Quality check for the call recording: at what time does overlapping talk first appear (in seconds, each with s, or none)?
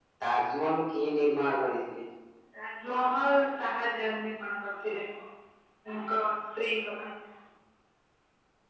none